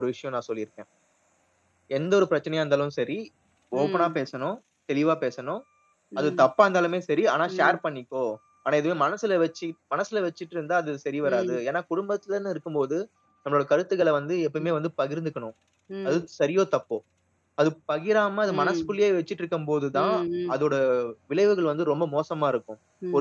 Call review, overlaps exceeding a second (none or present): none